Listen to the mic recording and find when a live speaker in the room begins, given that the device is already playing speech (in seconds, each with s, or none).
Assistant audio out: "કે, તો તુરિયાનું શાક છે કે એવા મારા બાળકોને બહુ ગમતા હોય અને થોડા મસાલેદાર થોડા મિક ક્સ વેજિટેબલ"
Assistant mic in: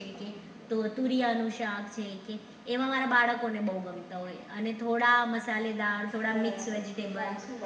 6.3 s